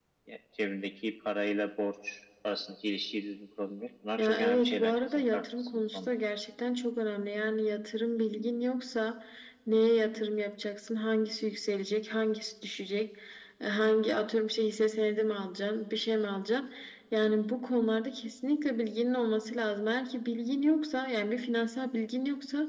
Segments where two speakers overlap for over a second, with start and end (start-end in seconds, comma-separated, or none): 4.2-6.1